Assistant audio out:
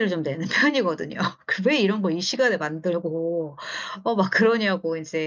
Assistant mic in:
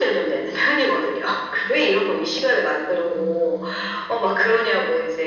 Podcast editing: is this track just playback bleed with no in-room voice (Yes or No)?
No